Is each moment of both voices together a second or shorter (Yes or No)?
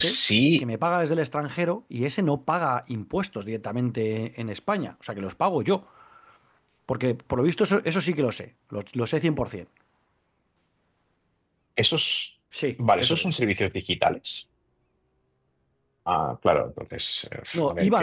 Yes